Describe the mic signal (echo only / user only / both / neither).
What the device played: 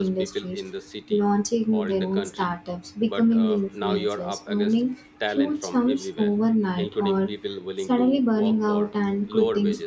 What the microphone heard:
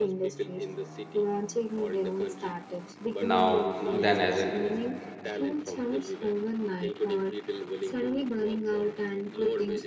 both